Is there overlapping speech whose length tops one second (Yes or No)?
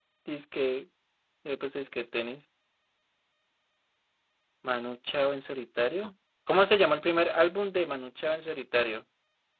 No